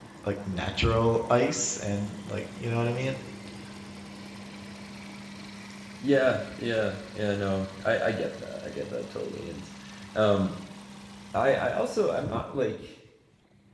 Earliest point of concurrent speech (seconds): none

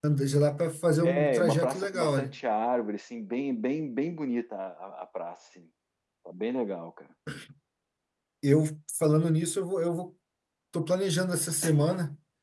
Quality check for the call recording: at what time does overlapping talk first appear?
1 s

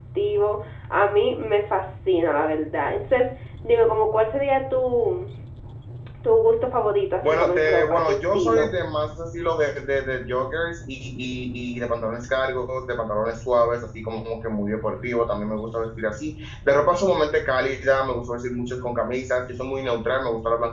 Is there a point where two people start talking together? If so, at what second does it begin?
7 s

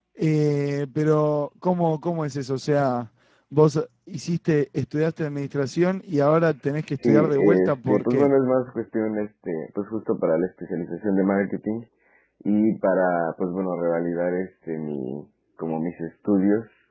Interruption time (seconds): 7 s

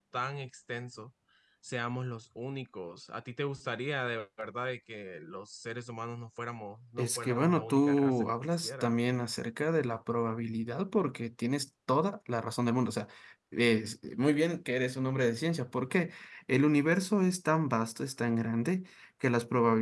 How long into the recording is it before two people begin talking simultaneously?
7 s

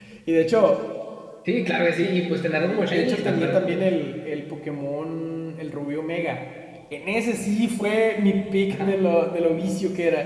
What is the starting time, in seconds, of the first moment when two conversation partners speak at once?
3 s

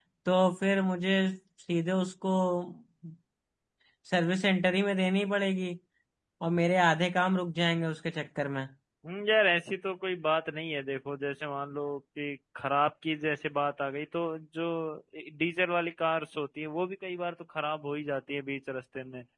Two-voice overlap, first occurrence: none

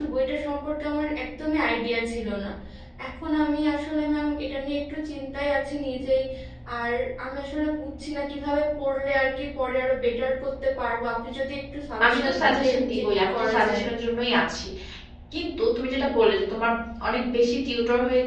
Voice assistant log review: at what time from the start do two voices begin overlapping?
12 s

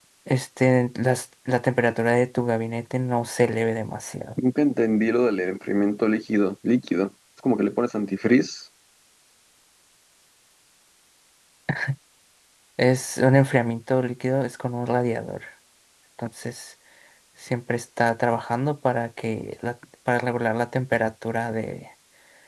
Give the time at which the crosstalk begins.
none

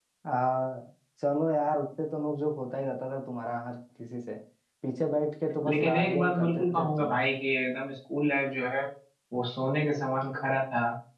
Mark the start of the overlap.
6 s

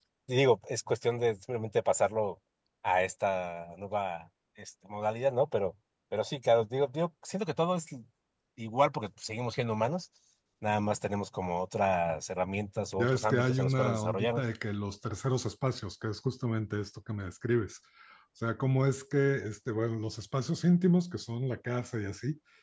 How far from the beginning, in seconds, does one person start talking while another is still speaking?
13 s

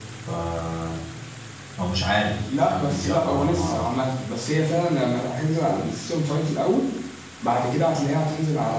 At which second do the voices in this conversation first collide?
3 s

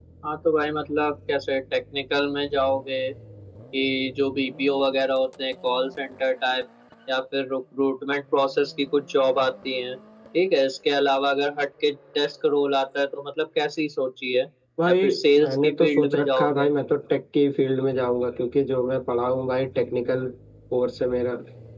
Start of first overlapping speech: 15 s

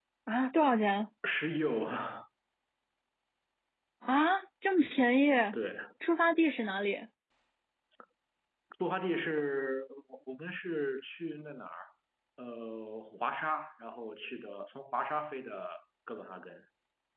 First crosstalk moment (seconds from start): none

